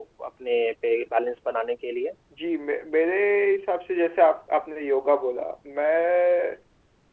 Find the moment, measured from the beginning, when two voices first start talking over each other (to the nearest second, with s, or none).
none